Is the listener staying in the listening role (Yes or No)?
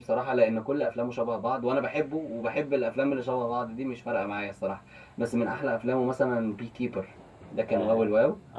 No